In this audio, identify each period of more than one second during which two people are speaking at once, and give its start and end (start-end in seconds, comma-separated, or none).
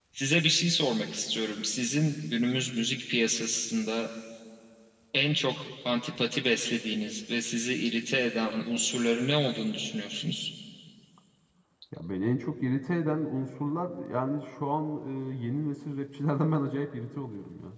none